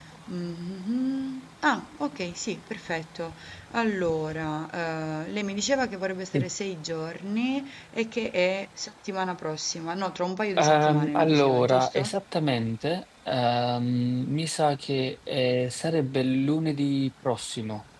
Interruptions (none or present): present